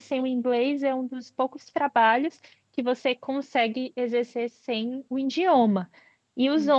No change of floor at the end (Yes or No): Yes